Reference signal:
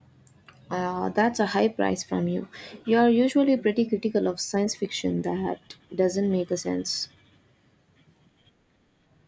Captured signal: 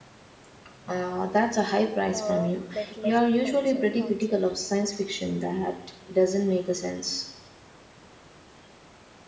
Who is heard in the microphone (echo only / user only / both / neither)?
both